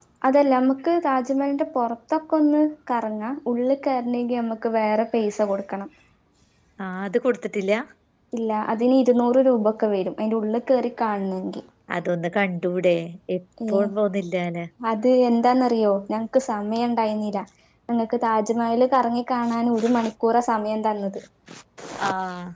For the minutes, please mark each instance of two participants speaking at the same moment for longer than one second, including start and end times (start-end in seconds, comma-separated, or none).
none